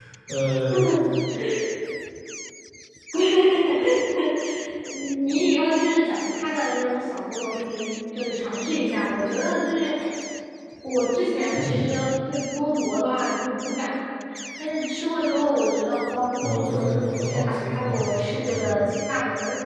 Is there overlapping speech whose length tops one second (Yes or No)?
Yes